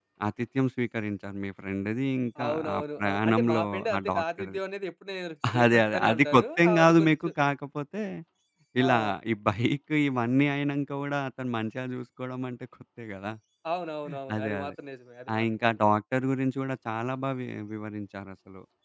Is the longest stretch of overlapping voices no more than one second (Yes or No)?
No